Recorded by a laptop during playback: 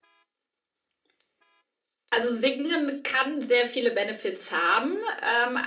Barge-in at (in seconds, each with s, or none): none